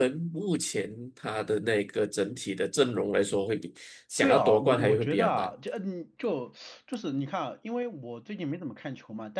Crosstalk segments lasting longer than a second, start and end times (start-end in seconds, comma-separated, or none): 4.2-5.5